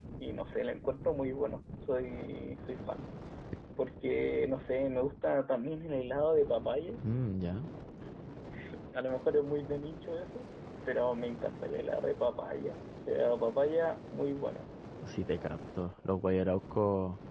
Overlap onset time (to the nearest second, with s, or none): none